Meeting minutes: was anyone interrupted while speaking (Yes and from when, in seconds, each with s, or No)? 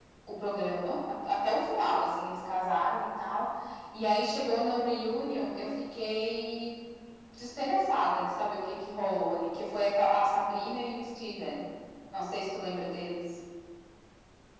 No